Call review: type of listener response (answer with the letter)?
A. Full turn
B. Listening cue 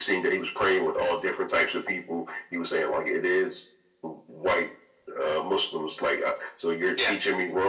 B